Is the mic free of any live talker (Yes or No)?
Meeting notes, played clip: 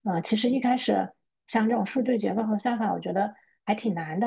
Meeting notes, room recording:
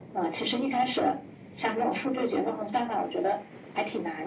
Yes